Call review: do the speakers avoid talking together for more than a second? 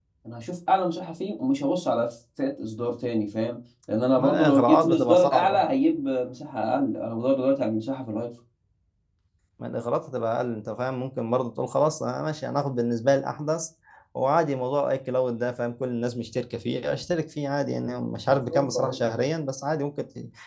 No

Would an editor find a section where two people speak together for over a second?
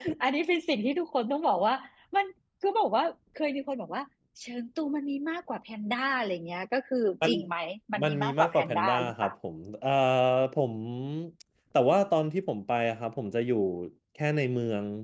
Yes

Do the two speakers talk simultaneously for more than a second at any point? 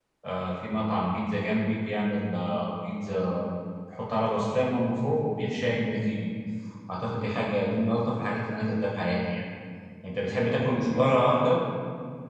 Yes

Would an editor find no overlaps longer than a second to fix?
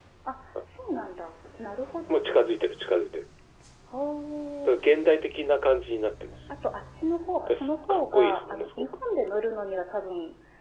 No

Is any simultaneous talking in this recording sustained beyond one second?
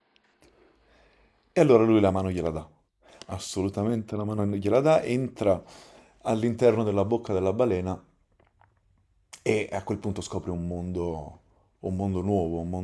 No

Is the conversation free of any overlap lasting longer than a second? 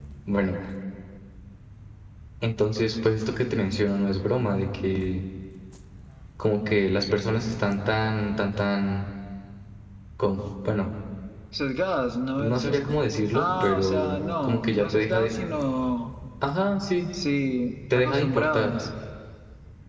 No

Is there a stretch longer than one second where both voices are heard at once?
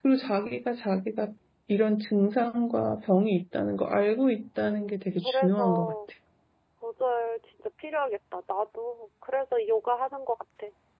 Yes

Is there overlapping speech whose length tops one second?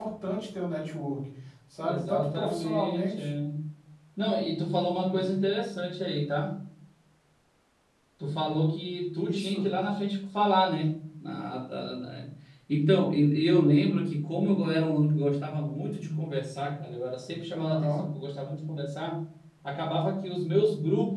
Yes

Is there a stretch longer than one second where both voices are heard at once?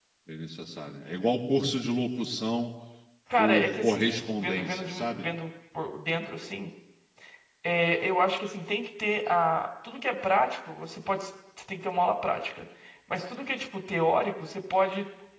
Yes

